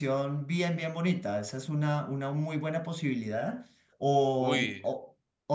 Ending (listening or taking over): listening